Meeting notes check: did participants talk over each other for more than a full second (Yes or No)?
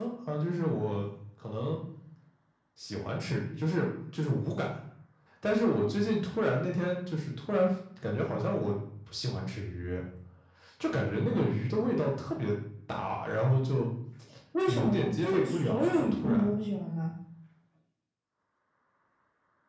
Yes